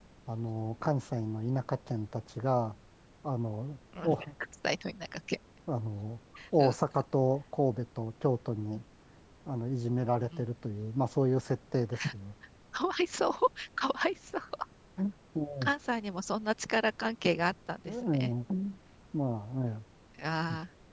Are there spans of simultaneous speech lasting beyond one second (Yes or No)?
No